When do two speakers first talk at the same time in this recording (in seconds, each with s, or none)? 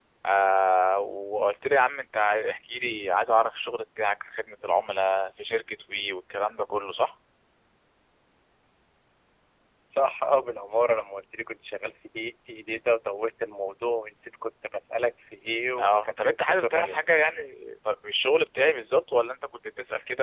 15.8 s